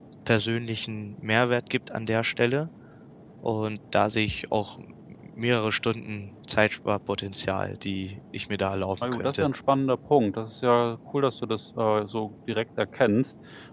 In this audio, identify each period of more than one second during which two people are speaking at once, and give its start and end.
none

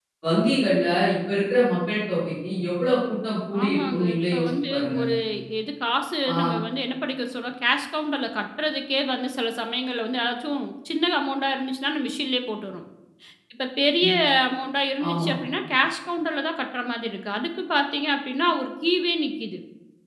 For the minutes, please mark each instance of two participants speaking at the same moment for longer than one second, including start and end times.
3.6-5.0

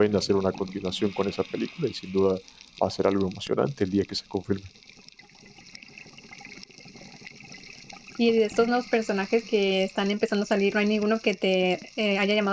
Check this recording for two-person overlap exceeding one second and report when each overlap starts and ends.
none

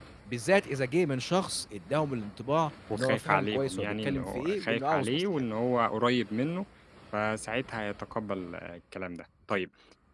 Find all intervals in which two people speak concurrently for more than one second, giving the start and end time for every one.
2.9-5.4

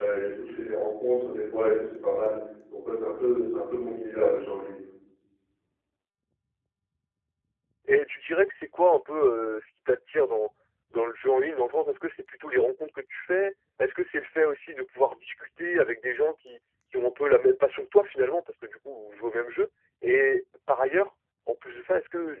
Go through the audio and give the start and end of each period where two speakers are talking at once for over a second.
none

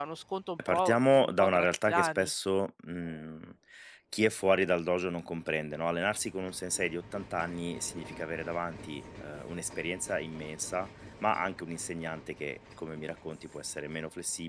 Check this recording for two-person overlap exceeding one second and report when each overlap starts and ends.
0.7-2.3

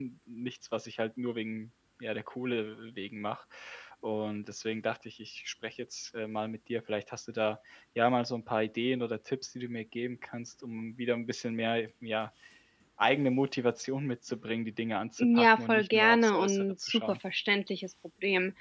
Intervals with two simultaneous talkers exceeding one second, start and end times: 15.2-17.2

